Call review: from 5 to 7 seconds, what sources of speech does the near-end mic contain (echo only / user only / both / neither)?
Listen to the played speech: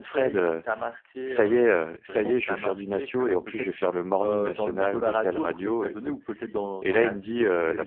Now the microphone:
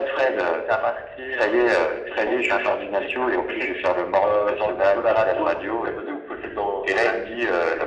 echo only